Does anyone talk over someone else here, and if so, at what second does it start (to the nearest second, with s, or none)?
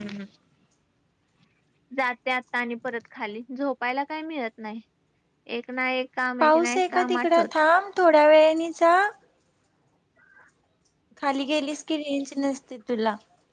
6 s